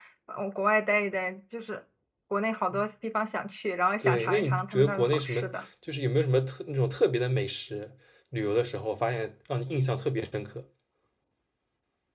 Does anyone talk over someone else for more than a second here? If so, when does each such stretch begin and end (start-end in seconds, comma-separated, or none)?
4.0-5.4